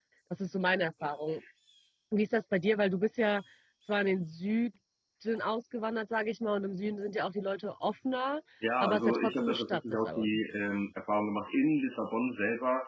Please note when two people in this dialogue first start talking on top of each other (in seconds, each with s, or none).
8.8 s